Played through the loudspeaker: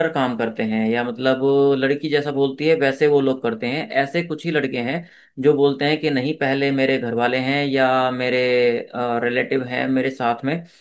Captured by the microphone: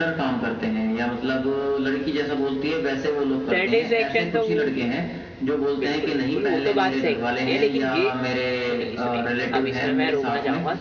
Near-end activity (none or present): present